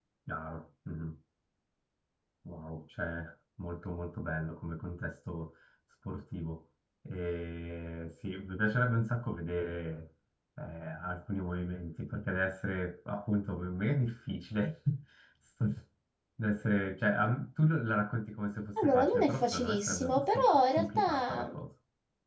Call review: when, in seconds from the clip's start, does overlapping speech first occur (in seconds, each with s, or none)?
18.8 s